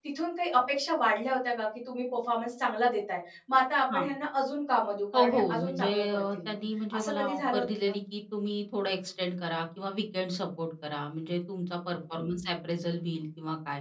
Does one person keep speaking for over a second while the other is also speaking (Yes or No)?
Yes